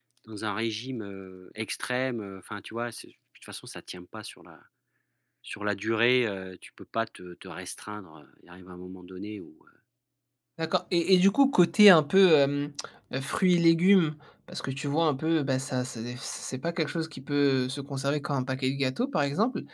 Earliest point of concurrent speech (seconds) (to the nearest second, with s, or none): none